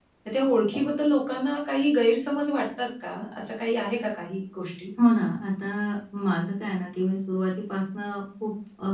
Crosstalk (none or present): none